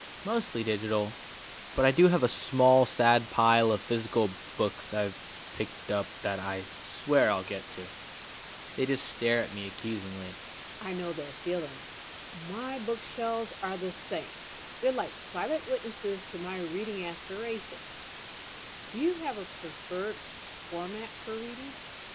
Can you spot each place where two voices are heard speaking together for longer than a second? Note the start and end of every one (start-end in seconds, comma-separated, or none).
none